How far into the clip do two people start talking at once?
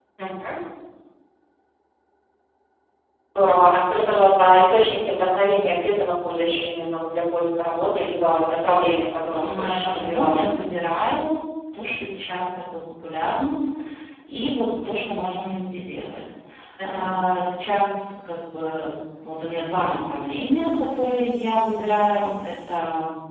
9.2 s

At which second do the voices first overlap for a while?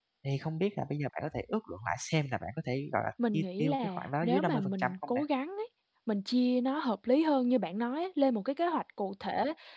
3.2 s

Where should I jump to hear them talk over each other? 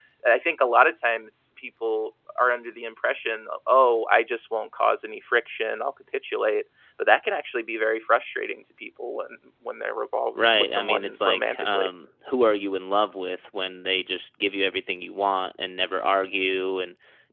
10.3 s

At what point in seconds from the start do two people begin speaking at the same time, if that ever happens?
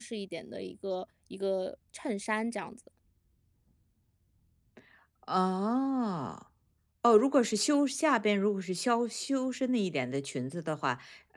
none

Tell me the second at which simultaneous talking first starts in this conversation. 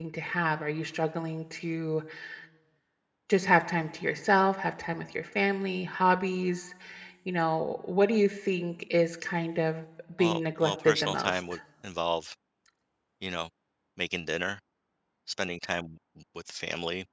10.2 s

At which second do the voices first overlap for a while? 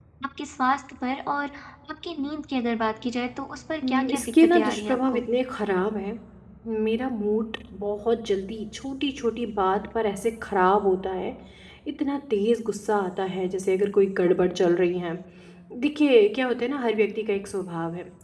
3.8 s

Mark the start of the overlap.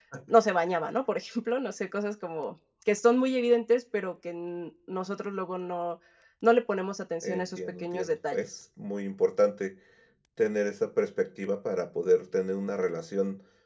7.2 s

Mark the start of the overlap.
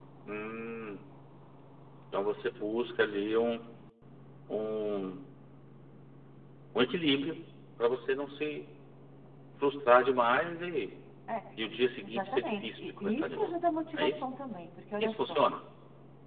12.0 s

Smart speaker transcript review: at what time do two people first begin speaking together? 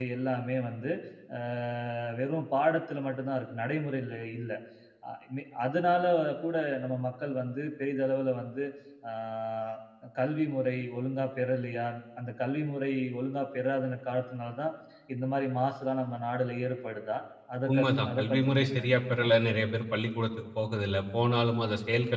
17.7 s

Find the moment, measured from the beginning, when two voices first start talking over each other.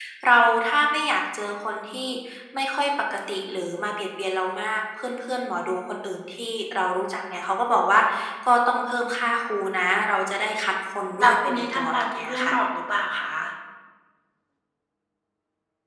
11.2 s

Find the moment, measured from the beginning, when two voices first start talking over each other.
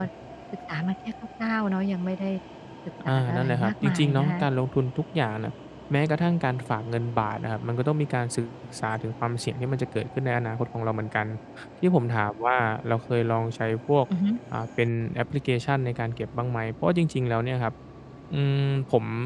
3.1 s

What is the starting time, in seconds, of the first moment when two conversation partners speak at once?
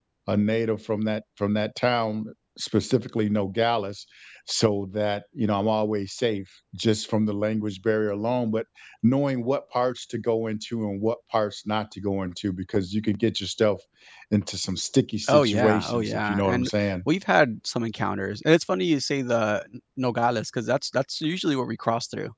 15.3 s

